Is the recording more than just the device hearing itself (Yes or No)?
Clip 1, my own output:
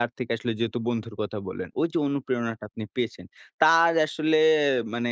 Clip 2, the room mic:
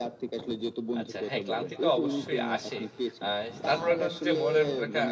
Yes